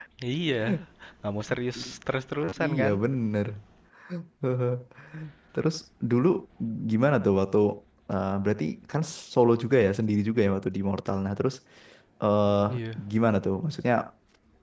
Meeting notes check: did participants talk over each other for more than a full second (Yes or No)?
No